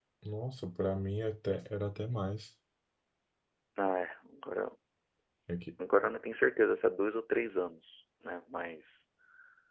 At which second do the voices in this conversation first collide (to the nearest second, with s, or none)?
none